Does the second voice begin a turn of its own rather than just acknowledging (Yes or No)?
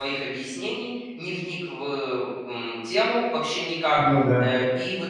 No